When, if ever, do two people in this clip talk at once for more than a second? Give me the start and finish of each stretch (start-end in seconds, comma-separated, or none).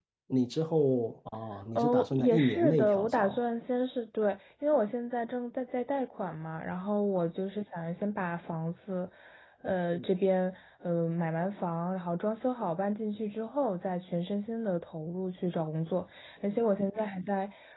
1.8-3.4